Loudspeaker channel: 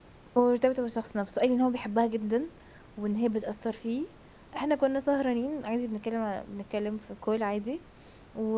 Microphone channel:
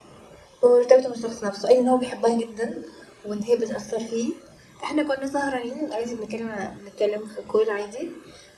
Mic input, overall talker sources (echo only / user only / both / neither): echo only